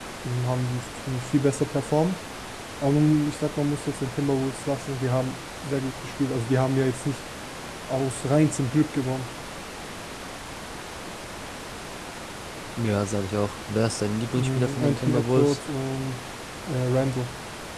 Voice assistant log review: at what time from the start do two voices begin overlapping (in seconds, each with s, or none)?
14.3 s